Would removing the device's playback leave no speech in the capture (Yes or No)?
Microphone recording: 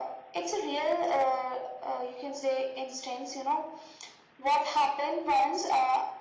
Yes